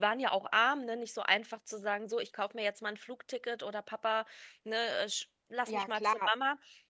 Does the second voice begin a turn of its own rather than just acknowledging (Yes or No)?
Yes